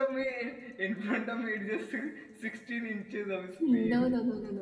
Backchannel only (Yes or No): No